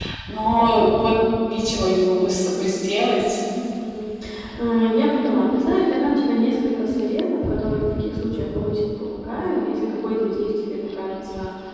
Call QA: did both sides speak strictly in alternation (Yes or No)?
Yes